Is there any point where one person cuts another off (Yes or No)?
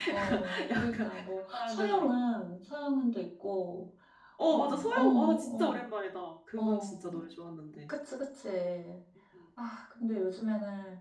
Yes